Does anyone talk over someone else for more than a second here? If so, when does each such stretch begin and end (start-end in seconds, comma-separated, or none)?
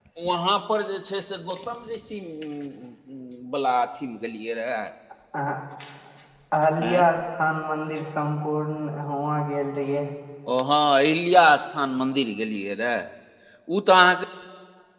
none